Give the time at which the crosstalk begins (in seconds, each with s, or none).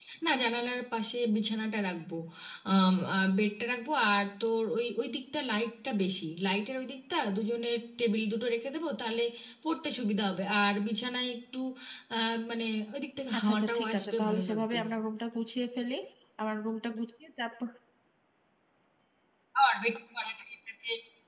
13.3 s